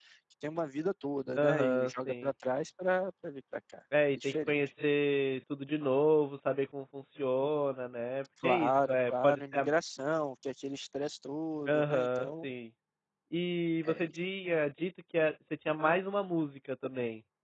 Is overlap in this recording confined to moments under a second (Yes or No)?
No